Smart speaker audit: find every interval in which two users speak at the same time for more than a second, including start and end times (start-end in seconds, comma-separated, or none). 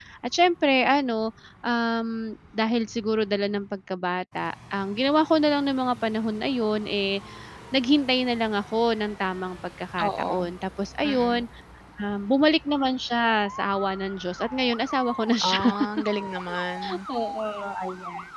none